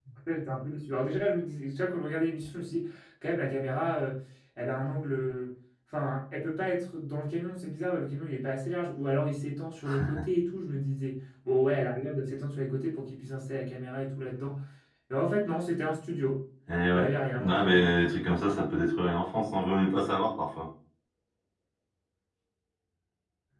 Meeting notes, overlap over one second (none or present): none